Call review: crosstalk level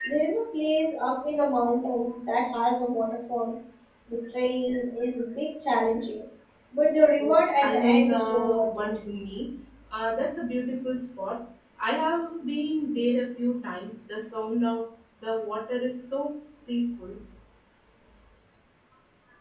present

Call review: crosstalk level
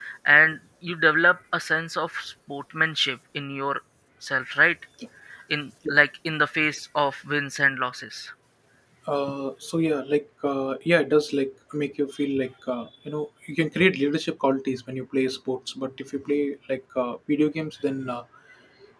none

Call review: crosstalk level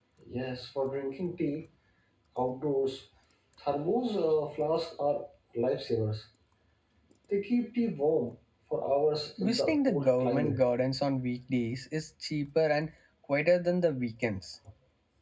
present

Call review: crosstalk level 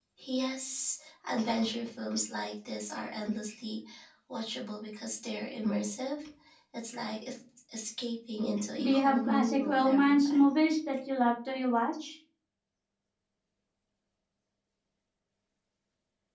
present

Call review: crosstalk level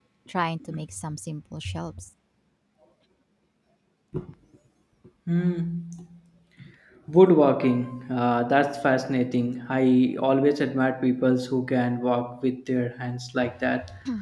none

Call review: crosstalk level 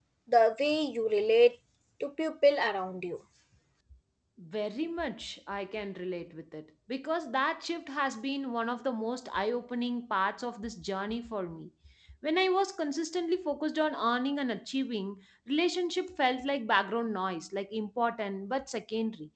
none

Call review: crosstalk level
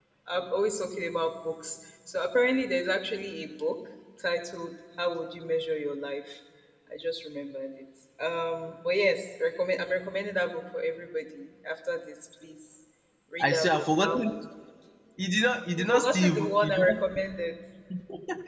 present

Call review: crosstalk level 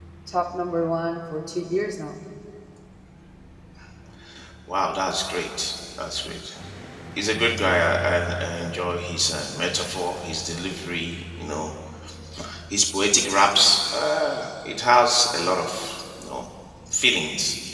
none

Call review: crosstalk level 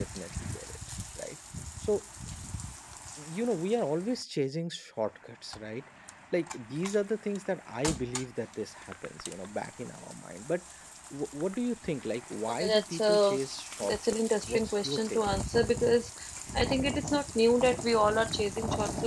present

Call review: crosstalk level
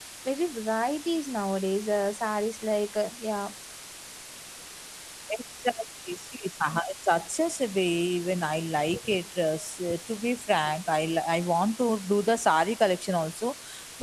none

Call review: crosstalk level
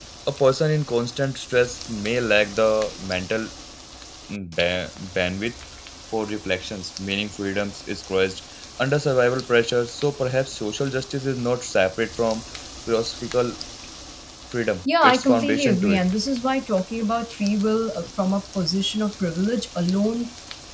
present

